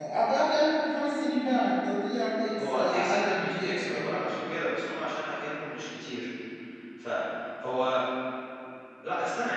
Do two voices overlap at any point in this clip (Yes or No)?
Yes